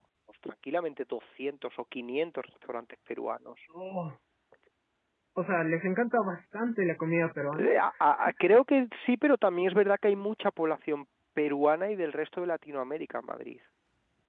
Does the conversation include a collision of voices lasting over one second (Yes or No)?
No